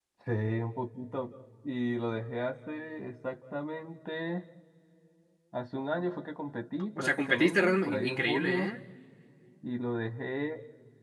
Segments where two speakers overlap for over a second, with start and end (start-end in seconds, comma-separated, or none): 7.0-8.7